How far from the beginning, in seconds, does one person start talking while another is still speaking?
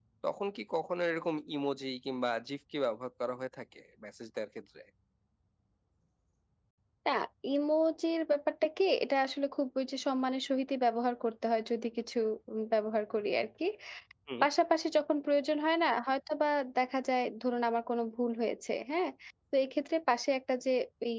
none

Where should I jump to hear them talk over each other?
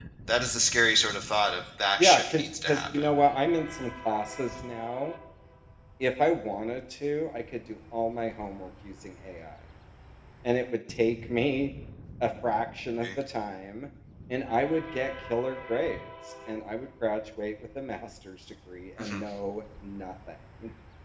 2 s

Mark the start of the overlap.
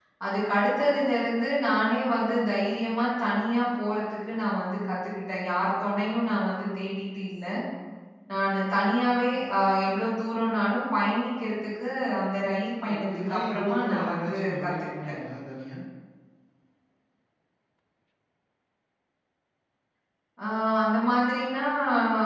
13 s

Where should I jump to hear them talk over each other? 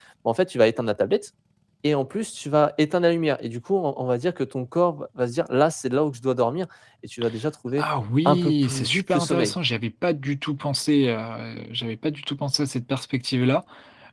8 s

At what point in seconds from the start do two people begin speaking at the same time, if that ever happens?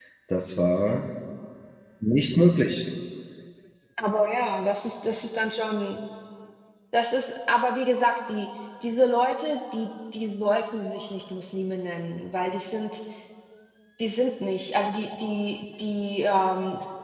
none

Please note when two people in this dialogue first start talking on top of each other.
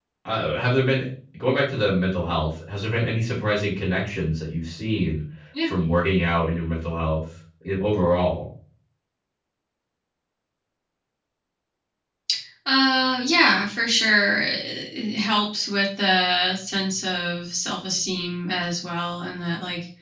none

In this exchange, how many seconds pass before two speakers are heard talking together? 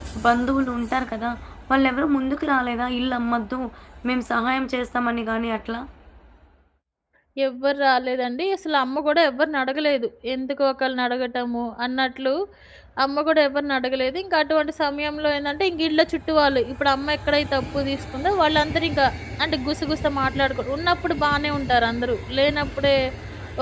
none

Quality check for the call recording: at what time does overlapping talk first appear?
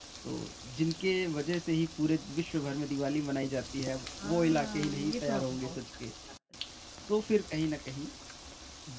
4 s

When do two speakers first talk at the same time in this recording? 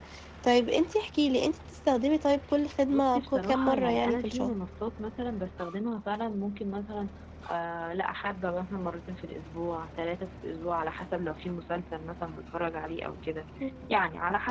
3 s

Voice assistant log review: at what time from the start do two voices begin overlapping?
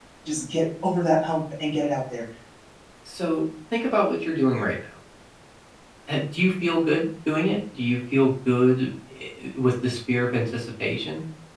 none

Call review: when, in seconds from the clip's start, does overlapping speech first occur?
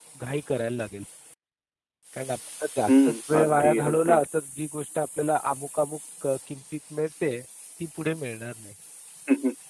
3 s

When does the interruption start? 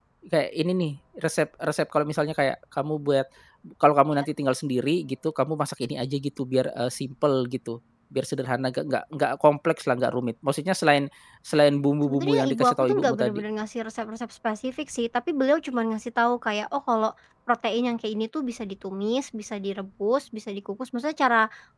12 s

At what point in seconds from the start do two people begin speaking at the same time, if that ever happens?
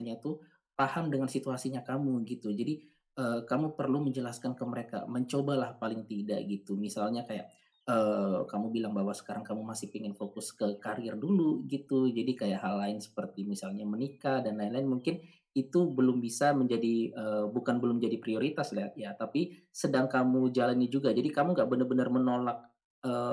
none

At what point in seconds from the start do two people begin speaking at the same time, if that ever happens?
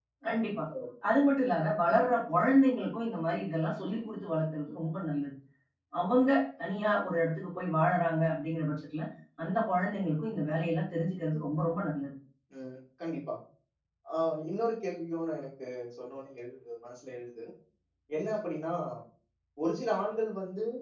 none

